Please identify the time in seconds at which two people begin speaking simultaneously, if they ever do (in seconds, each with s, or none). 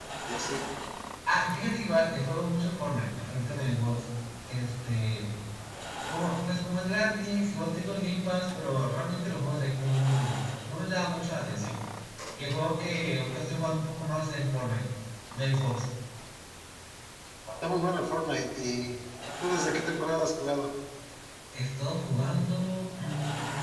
none